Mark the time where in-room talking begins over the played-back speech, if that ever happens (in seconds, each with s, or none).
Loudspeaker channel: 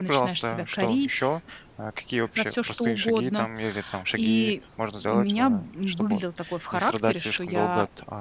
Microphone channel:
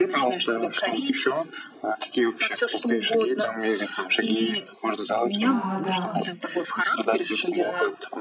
5.4 s